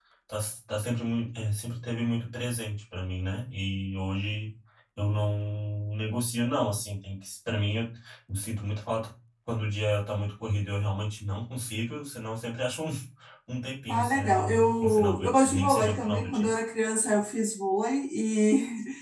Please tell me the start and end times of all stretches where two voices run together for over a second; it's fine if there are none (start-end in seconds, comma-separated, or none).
13.9-16.5